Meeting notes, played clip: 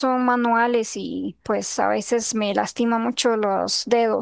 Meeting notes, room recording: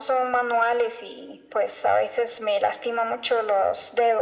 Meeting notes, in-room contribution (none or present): none